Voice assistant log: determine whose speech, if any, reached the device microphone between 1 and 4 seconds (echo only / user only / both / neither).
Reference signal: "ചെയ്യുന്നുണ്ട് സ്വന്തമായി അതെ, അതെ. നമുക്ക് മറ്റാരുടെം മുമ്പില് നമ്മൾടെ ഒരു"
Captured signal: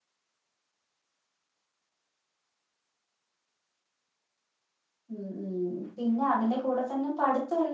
neither